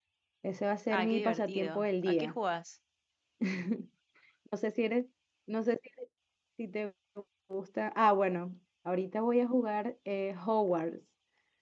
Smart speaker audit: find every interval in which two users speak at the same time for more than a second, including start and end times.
0.9-2.4

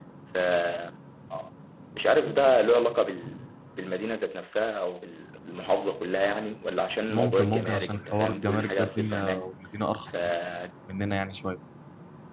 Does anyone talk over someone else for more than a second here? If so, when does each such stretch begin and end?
7.1-9.5

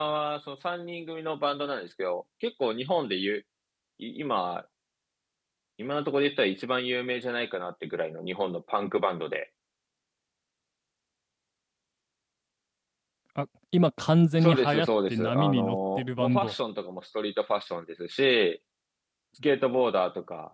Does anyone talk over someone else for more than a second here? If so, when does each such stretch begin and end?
14.4-16.5

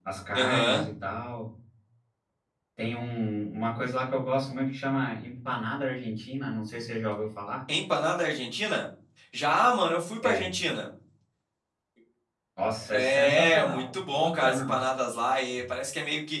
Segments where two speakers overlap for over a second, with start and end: 12.9-14.8

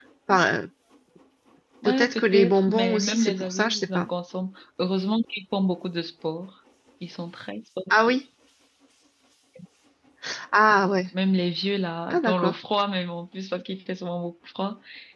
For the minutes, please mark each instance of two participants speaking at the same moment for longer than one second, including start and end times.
1.9-4.1

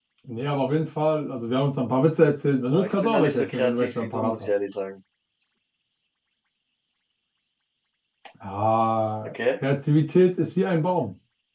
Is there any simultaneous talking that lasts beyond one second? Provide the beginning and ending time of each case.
2.7-4.5

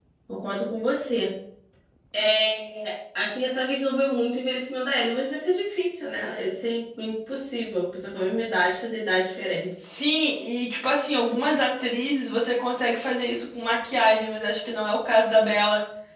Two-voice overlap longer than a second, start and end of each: none

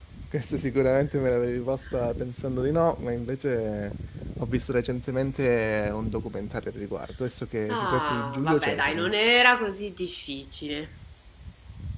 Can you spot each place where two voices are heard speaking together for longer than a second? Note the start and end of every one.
7.7-9.1

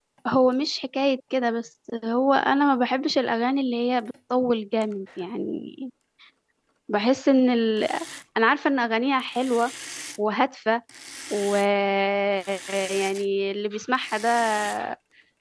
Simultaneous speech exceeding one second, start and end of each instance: none

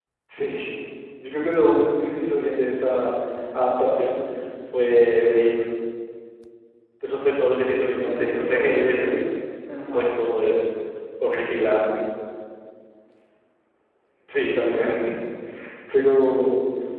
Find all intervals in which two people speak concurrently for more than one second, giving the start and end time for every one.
7.9-9.2

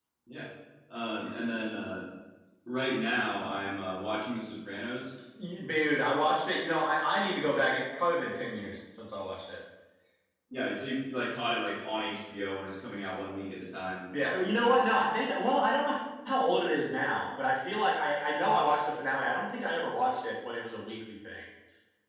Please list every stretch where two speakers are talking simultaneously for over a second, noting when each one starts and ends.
none

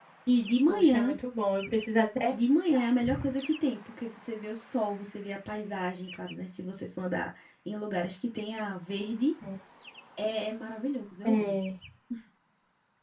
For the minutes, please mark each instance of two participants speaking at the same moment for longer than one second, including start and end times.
none

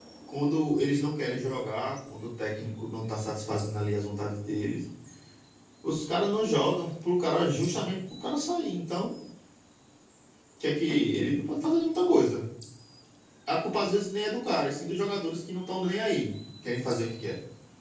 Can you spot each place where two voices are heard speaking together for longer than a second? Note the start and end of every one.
none

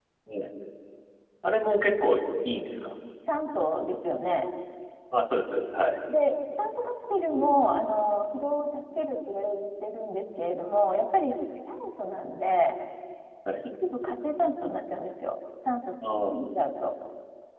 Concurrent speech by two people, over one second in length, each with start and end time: none

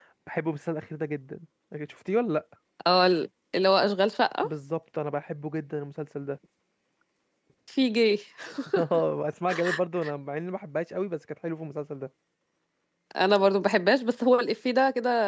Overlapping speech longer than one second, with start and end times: none

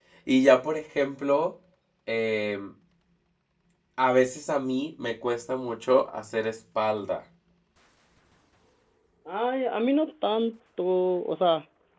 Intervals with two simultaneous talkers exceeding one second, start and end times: none

